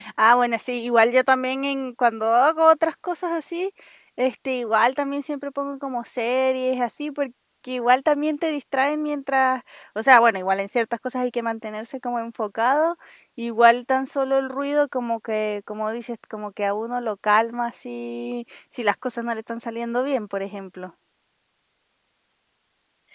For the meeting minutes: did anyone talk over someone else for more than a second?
No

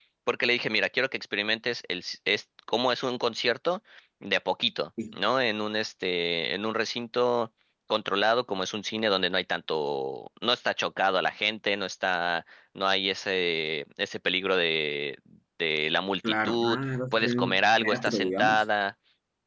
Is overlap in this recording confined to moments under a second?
No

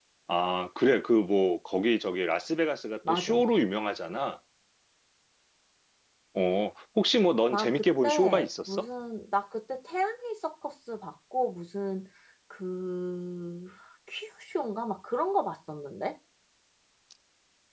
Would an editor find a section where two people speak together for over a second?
Yes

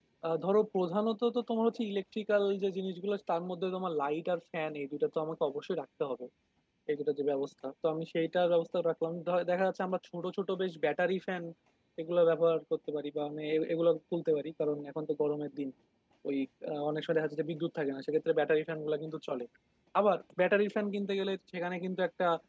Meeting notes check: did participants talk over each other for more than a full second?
No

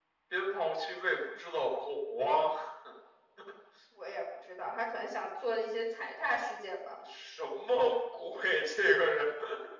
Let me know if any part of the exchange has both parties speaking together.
No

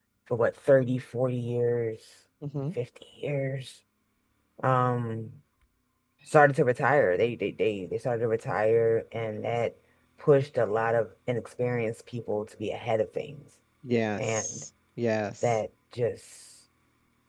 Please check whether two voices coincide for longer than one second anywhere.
No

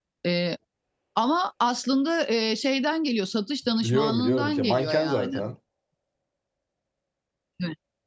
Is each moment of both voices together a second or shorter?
No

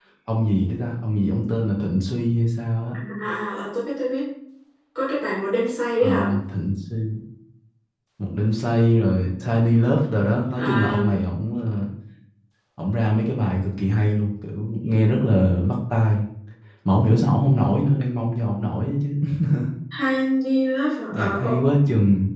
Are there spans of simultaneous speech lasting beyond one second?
No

